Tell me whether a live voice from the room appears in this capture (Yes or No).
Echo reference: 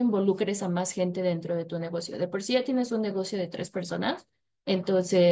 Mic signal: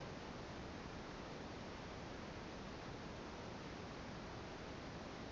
No